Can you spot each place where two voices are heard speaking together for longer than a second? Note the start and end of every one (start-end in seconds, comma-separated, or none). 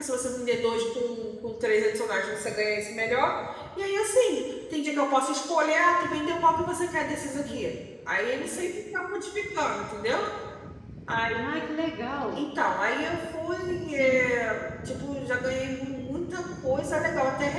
none